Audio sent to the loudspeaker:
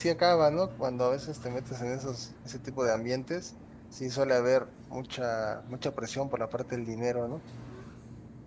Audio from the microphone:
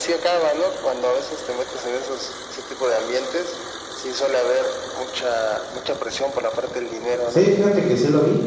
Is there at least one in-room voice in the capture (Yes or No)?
Yes